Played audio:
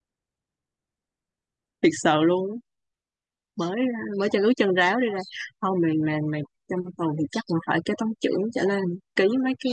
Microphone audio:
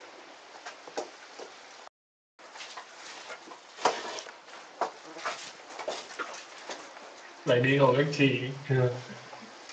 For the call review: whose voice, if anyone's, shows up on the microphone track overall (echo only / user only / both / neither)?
user only